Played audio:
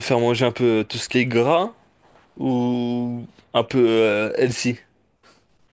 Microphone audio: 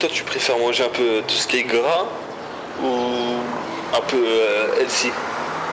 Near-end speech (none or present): none